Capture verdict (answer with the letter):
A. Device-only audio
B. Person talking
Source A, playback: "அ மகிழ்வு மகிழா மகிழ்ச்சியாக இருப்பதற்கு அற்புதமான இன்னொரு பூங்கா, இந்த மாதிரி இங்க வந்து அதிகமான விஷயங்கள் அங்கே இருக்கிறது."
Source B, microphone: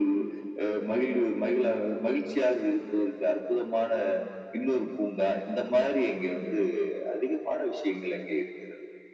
A